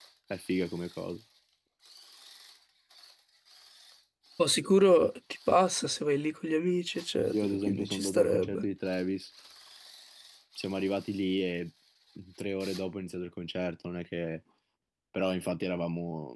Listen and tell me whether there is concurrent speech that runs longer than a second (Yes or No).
Yes